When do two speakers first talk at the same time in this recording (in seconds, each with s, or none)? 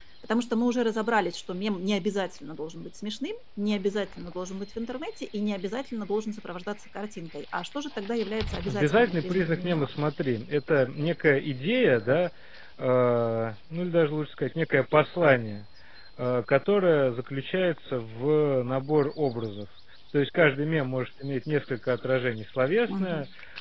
8.6 s